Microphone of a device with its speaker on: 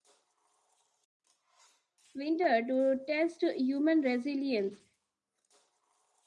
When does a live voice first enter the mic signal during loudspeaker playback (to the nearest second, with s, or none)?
2 s